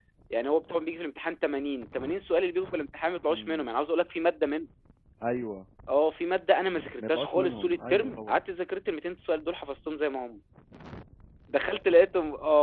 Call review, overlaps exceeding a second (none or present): present